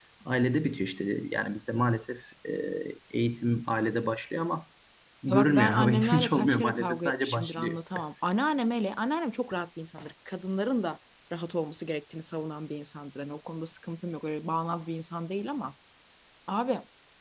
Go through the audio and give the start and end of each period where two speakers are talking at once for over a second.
5.3-7.8

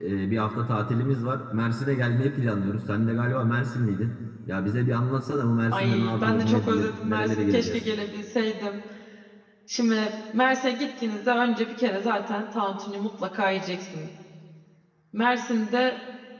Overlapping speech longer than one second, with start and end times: 5.7-7.8

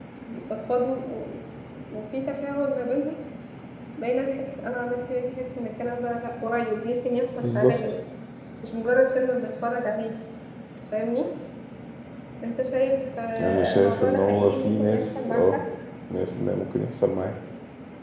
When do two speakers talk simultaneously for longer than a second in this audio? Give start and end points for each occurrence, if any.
13.4-15.6

